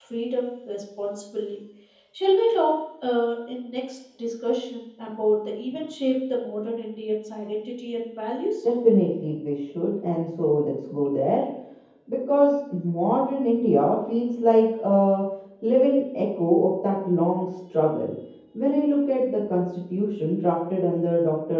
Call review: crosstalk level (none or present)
none